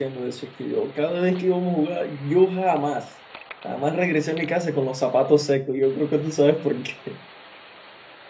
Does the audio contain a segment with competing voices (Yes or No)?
No